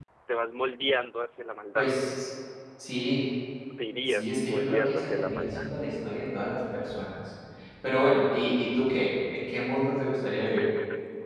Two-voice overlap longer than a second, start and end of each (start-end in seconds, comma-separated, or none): 4.1-5.6